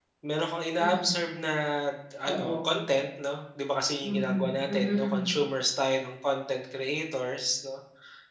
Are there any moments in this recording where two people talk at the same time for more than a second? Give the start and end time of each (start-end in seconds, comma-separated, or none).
4.0-5.3